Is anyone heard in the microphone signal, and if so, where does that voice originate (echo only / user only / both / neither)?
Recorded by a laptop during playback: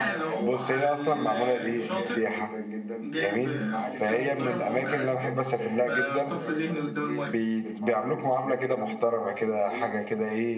both